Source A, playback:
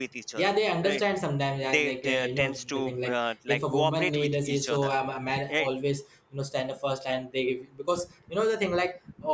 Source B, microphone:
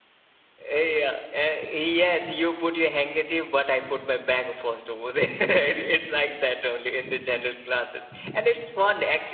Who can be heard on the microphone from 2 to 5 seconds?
user only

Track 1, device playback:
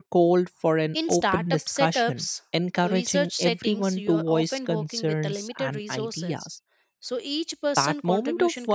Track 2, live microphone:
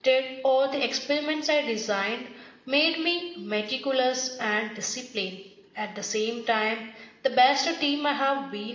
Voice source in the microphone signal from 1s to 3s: user only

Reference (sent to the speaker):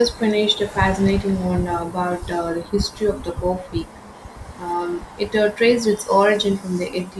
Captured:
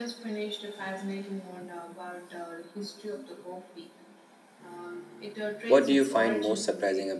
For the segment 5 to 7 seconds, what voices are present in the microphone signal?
both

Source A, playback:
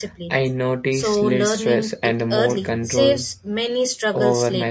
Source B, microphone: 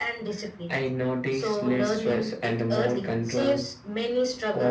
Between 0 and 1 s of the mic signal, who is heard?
echo only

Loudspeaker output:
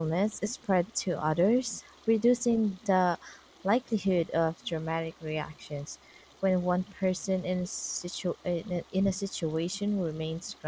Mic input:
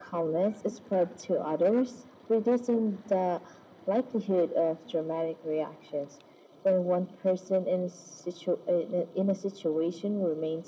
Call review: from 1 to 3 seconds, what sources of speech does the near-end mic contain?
echo only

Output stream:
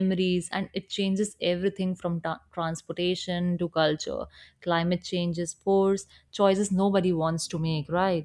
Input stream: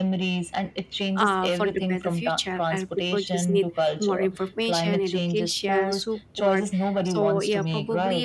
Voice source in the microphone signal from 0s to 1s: echo only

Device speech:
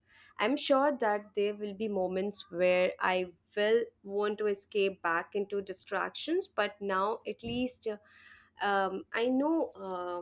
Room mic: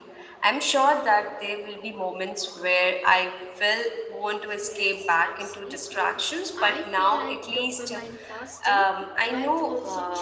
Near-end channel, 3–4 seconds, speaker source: echo only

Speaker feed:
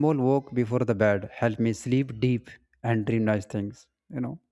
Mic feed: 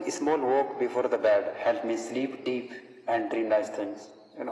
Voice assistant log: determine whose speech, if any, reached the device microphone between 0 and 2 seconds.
echo only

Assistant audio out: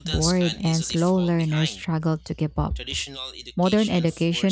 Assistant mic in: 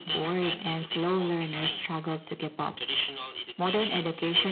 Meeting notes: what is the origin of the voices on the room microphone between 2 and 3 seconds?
echo only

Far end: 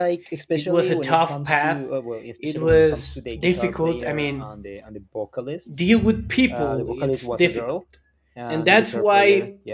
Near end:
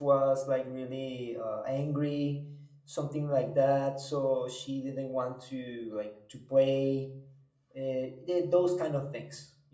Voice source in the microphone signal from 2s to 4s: user only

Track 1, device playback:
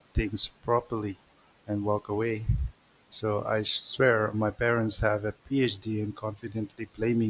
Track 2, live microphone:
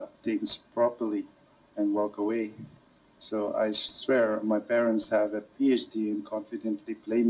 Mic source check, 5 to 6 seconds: echo only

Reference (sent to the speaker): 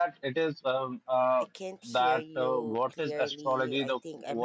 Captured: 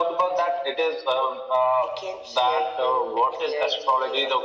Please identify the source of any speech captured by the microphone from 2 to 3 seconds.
echo only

